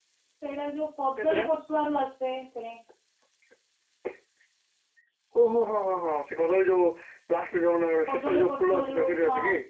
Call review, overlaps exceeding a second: present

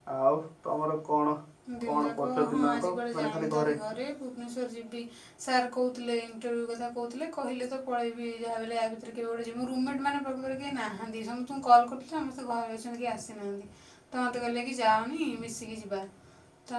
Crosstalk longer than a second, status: present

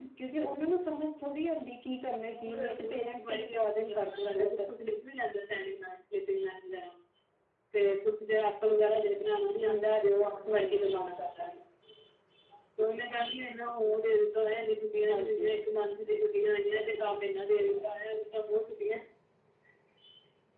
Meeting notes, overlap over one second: present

